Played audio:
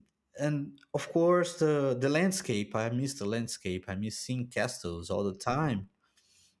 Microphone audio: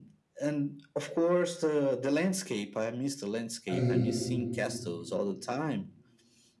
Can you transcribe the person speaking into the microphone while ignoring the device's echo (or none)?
I